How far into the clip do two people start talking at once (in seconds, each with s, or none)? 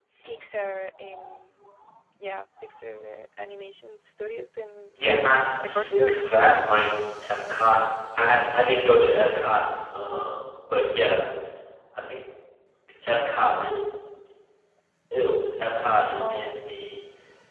5.1 s